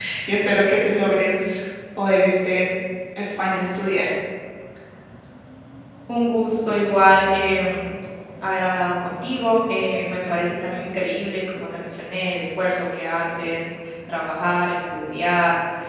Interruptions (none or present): none